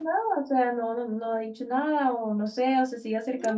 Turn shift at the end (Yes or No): No